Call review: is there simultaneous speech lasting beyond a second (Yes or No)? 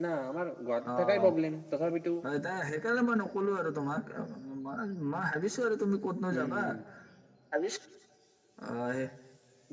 No